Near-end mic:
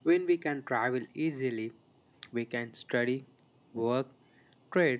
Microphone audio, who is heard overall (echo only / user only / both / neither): echo only